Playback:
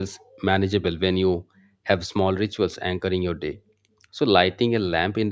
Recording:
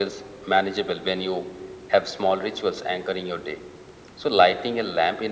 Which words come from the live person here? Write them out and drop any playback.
none

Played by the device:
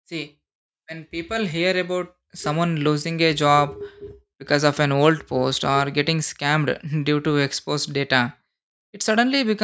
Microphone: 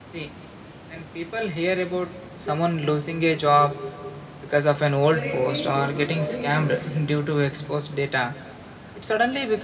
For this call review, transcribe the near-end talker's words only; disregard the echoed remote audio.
but it can also follow you professionally.

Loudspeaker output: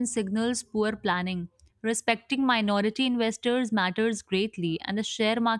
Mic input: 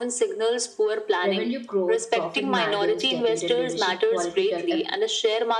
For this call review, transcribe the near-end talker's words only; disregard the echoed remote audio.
Revenue growth, profit margins, debate, and leadership quality tell a,

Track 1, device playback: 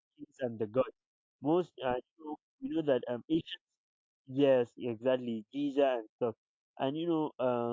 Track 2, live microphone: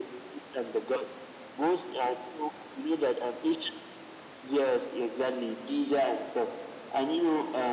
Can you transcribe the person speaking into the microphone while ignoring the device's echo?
none

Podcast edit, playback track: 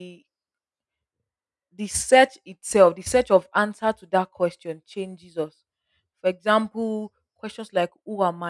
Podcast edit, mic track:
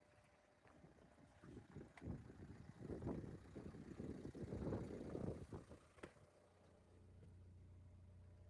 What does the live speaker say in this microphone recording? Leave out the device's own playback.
none

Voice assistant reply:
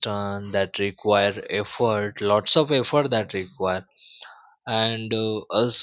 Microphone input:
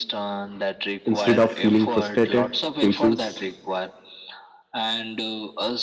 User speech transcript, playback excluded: instead of feeling frustrated patients

